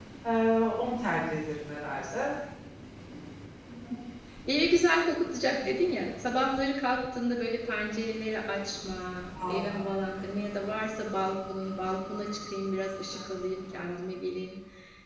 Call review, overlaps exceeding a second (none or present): none